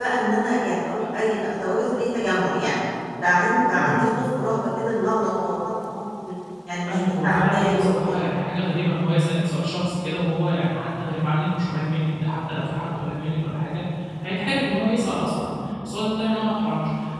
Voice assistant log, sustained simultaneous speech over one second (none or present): present